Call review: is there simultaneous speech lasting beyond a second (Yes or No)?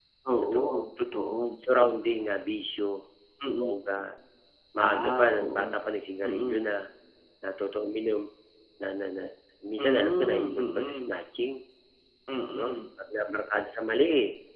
Yes